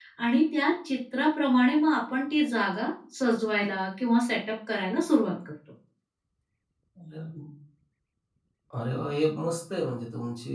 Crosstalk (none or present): none